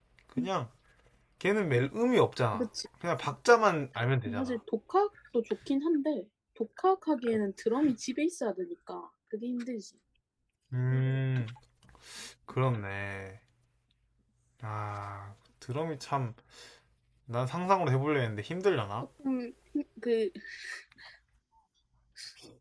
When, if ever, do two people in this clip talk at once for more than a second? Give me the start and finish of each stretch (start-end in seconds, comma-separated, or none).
none